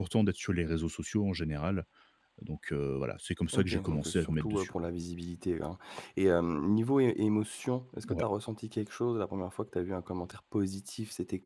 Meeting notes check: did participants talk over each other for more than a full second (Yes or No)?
Yes